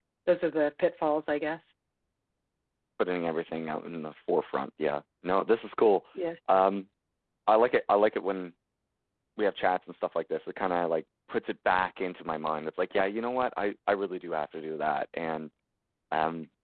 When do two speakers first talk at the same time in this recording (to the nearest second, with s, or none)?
none